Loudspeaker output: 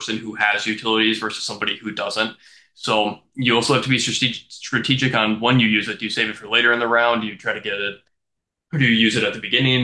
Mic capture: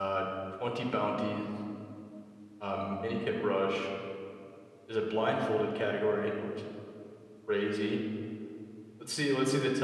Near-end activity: present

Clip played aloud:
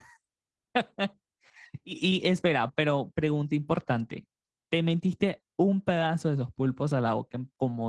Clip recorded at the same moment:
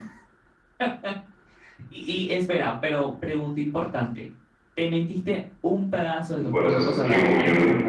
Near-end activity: present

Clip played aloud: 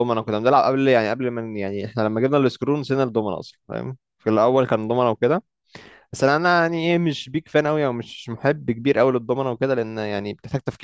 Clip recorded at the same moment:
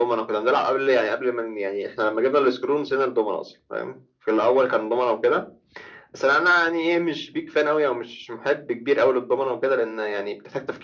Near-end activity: none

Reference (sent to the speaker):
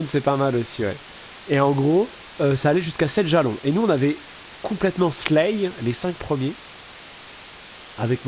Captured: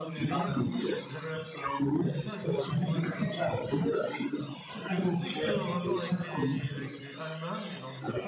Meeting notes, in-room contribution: present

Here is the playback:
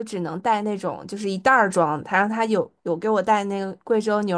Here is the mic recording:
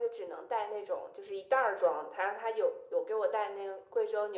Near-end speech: none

